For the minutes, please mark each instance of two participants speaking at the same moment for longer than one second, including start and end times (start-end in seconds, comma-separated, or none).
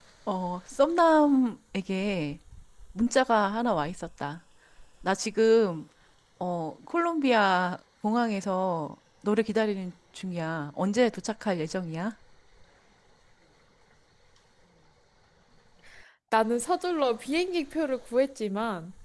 none